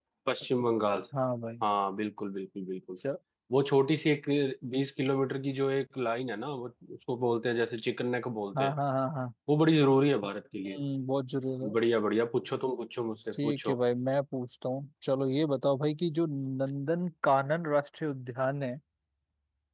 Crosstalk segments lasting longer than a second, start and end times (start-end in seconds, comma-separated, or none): none